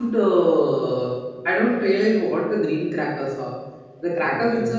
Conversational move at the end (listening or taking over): listening